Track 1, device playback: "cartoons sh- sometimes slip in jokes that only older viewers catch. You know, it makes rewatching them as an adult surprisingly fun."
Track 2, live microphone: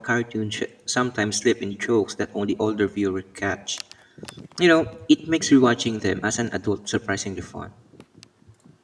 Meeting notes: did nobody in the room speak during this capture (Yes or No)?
Yes